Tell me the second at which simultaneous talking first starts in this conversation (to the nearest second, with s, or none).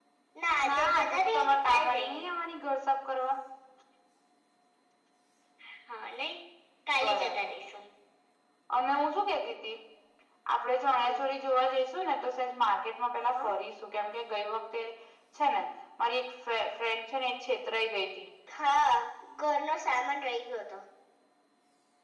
1 s